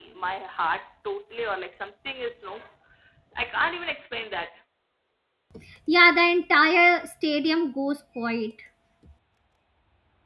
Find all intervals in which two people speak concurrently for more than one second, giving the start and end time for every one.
none

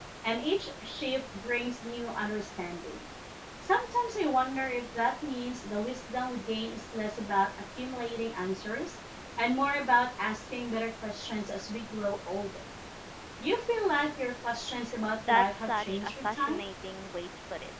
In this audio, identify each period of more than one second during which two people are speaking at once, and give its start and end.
15.3-16.6

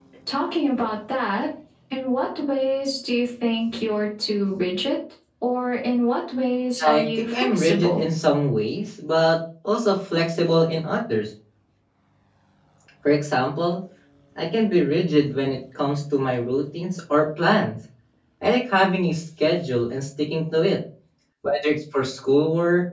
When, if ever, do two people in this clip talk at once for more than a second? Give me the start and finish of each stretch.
6.8-8.1

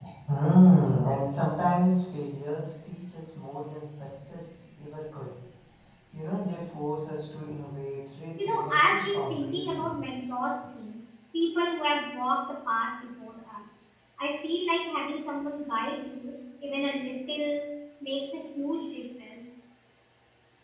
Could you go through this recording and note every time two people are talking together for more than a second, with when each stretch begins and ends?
8.4-10.0

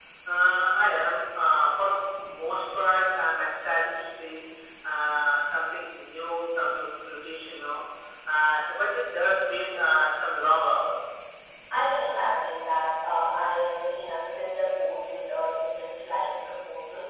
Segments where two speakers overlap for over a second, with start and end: none

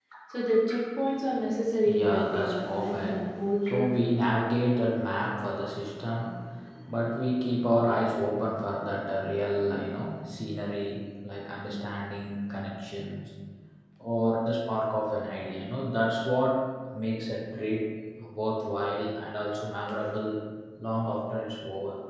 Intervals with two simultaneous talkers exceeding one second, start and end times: 1.9-3.2

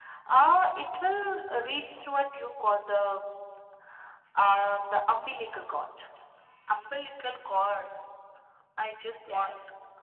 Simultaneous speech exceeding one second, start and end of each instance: none

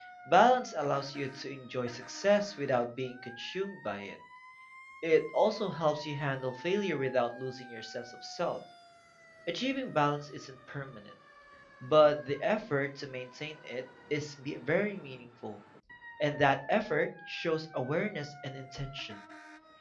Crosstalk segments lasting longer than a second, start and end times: none

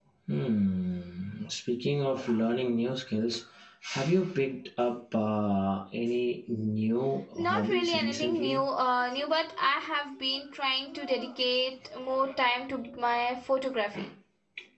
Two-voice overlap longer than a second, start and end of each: 7.3-8.6

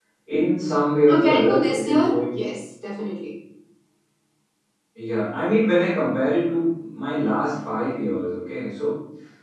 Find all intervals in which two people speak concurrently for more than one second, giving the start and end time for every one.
1.1-2.4

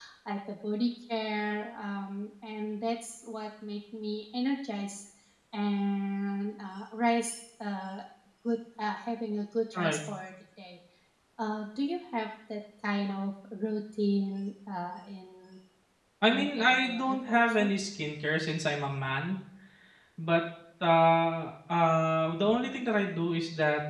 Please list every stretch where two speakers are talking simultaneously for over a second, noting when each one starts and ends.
16.3-17.7

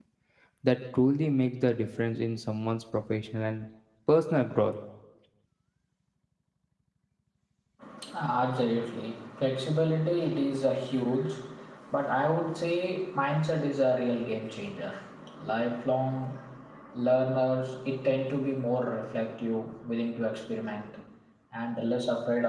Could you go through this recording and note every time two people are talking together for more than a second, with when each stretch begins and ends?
none

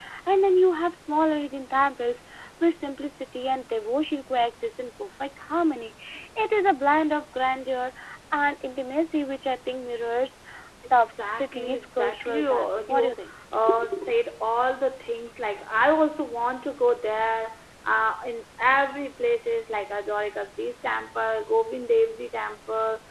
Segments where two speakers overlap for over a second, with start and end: 11.0-13.2

